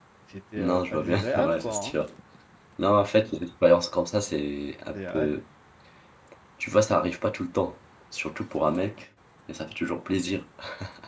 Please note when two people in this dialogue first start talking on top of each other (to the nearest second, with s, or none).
1 s